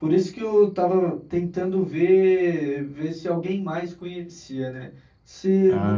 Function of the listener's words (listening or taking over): listening